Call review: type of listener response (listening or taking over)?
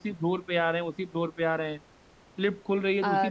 listening